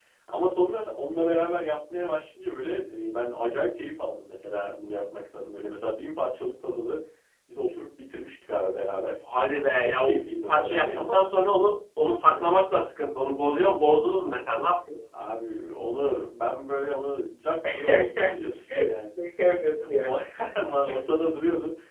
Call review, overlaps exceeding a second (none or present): present